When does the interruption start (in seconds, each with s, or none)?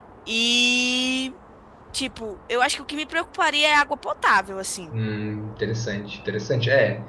none